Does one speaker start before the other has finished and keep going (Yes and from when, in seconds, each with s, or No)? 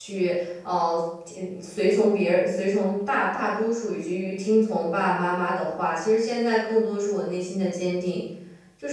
No